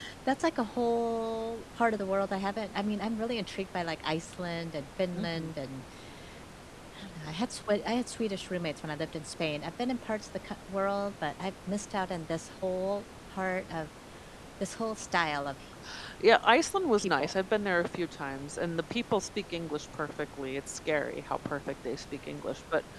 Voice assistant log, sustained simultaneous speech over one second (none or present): none